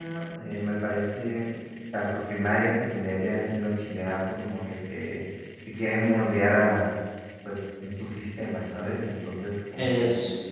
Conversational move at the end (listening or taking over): listening